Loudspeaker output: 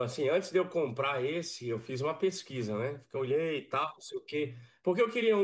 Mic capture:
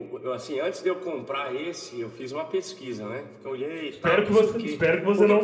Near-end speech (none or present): present